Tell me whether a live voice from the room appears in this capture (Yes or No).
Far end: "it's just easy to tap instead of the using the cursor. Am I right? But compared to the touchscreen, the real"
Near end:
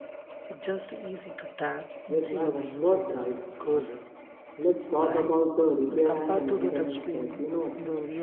Yes